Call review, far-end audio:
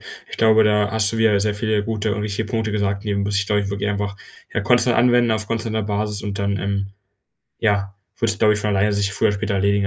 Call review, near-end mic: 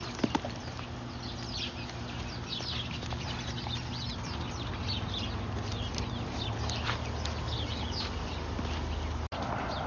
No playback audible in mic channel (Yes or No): Yes